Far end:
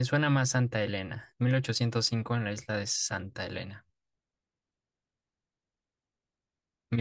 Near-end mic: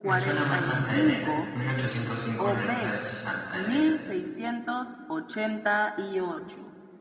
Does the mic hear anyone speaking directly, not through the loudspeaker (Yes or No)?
Yes